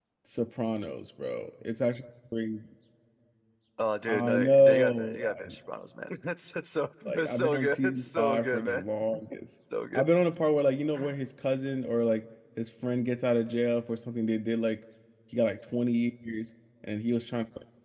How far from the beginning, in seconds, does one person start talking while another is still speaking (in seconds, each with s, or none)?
4.1 s